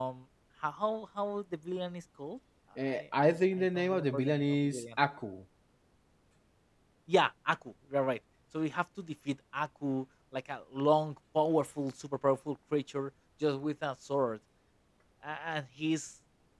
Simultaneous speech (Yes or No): Yes